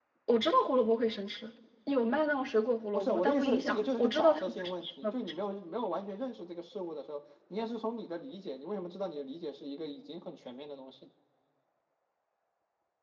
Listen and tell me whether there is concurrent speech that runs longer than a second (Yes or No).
Yes